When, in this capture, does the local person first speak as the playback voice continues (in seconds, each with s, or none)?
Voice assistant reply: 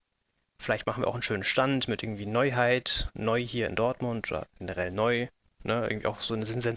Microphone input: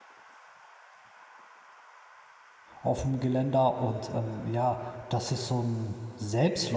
2.8 s